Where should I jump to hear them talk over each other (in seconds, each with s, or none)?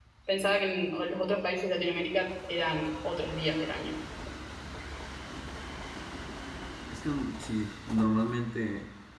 none